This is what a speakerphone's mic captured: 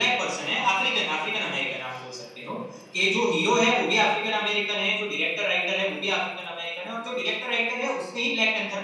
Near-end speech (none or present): none